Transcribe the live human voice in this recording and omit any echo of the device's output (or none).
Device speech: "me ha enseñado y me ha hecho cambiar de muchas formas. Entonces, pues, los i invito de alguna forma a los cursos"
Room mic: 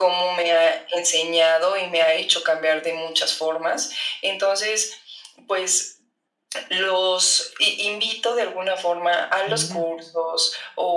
Mira.